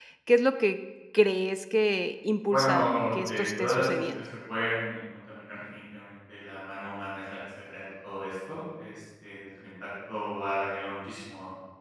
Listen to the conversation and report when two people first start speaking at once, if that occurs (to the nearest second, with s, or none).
2 s